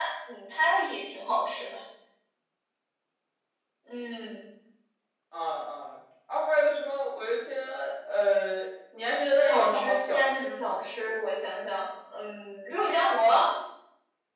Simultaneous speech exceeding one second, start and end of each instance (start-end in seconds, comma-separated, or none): 9.4-10.8